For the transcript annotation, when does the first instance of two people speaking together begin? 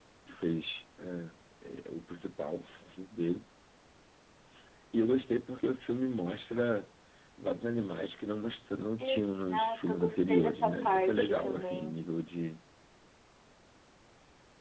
9.0 s

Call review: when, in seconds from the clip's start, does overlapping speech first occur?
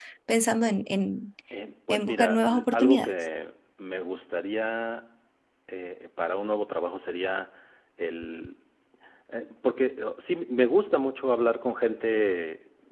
1.9 s

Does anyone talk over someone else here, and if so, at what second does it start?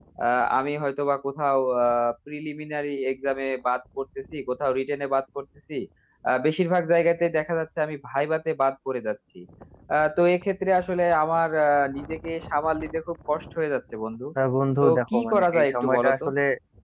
14.8 s

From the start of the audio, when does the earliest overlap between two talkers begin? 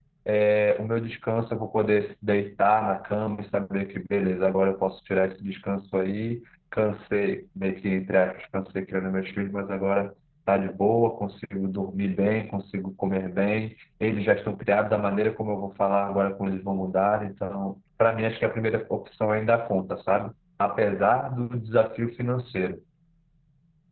none

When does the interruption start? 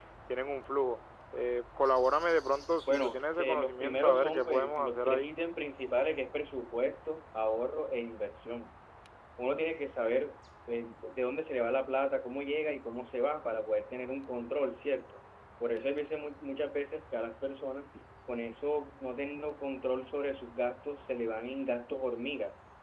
2.9 s

